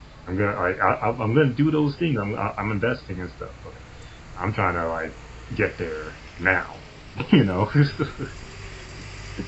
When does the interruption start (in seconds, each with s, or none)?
none